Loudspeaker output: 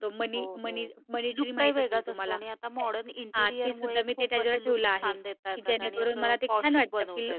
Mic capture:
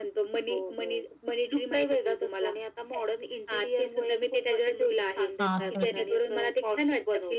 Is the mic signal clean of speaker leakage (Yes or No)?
No